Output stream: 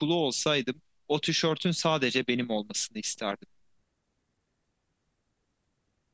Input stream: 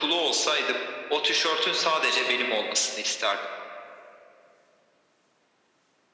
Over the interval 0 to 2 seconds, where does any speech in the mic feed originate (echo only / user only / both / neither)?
echo only